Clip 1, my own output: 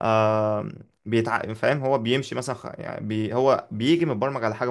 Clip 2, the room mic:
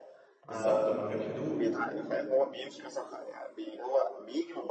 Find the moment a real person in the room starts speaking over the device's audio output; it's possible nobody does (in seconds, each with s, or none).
0.4 s